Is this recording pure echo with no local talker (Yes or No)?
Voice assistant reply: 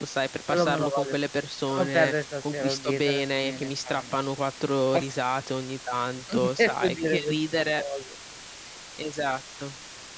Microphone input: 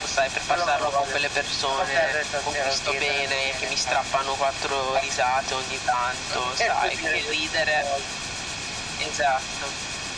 Yes